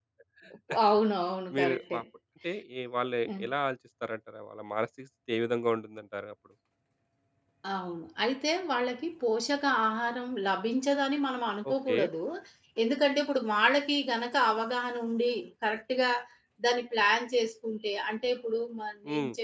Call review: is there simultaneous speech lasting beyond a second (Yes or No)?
No